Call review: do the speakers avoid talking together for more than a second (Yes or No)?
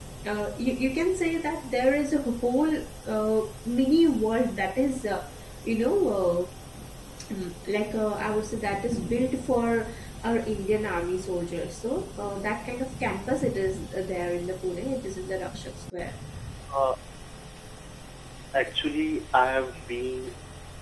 Yes